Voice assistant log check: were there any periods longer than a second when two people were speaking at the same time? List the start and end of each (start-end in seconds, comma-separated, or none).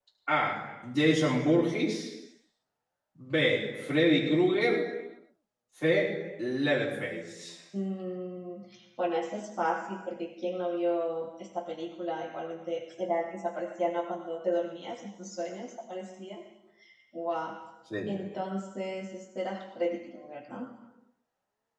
none